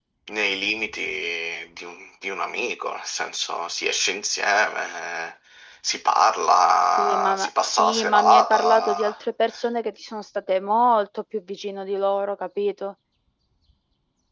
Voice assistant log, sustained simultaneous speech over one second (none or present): present